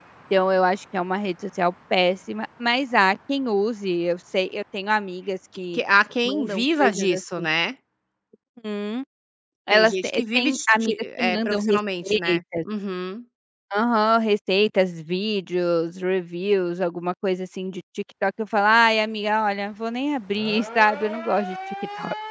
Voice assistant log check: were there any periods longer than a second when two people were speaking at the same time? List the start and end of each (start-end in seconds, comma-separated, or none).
6.2-7.5, 9.7-12.4